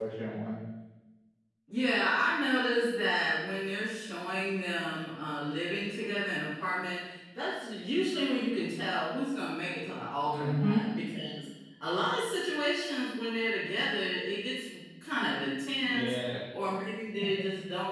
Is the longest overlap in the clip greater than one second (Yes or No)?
No